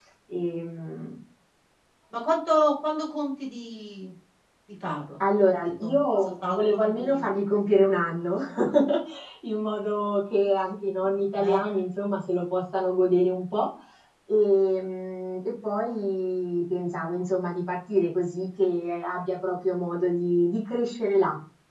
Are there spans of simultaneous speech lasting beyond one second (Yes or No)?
Yes